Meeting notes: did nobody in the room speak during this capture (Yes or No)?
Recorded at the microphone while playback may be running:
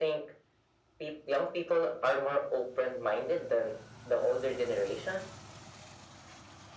Yes